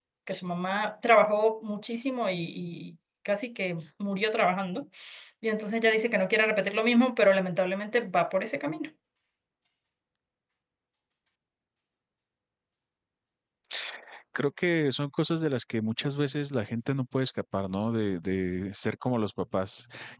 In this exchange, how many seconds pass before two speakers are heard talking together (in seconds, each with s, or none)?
none